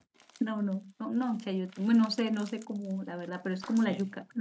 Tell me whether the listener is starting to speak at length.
No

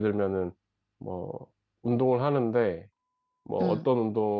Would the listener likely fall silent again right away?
Yes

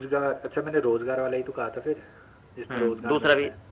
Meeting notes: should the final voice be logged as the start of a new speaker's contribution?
Yes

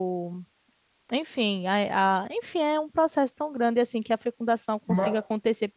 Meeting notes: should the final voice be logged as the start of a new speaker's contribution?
No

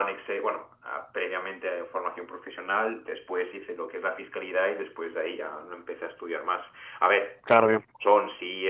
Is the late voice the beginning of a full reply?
No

